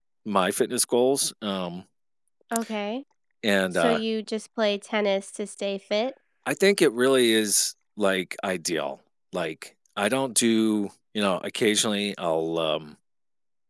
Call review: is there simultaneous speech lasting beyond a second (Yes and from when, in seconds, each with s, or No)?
No